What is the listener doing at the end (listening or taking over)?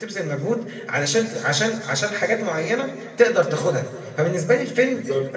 listening